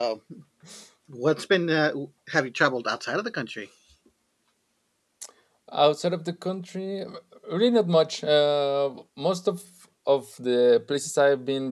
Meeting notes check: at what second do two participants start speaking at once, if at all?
none

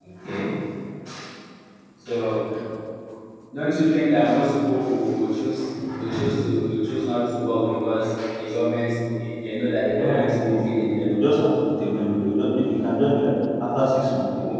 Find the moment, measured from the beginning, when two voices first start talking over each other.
10 s

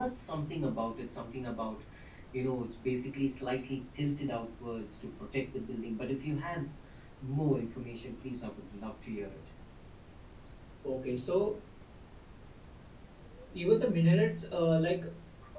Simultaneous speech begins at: none

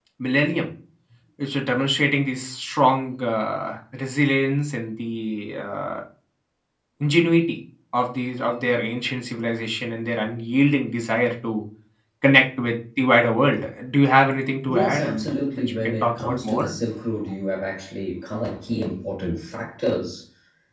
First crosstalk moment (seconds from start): 15 s

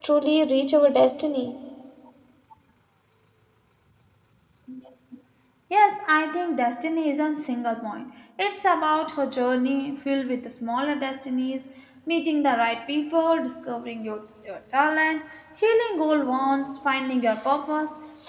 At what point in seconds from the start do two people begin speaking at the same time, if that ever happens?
none

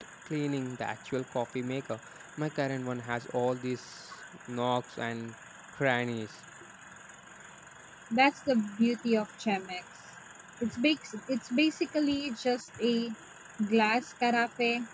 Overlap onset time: none

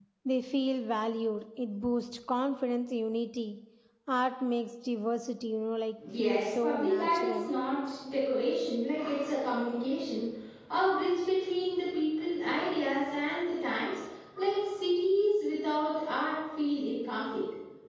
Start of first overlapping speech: 6 s

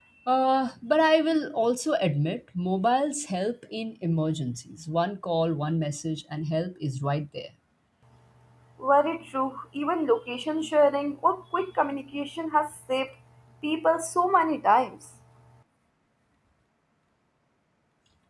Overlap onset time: none

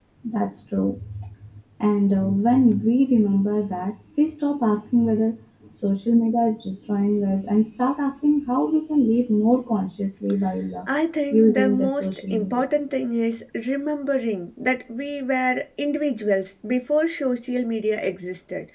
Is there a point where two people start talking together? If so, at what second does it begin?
11 s

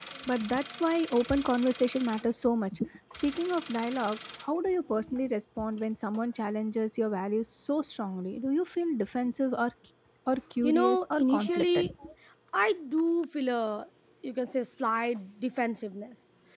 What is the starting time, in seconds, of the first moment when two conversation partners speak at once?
11 s

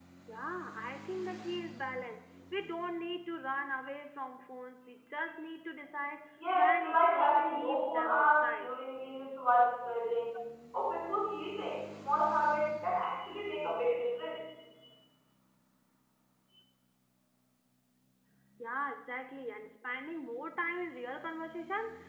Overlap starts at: 6 s

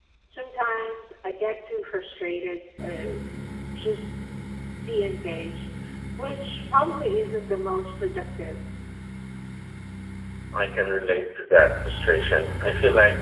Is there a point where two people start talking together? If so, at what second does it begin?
none

